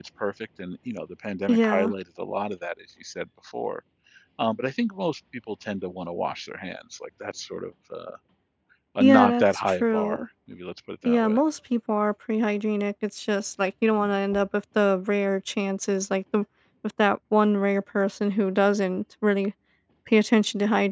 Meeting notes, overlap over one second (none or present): present